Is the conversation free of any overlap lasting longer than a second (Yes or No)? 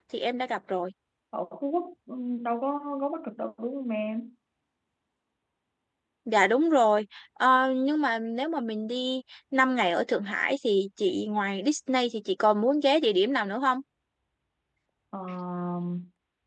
Yes